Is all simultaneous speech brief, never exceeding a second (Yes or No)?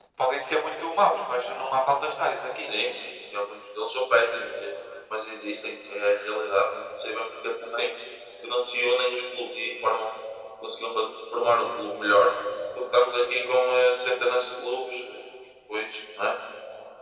Yes